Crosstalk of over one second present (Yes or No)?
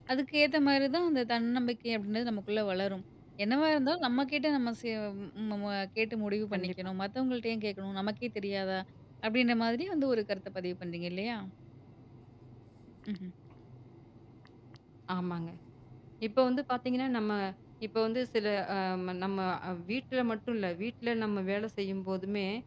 No